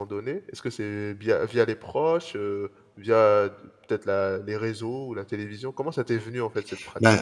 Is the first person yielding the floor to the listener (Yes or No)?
Yes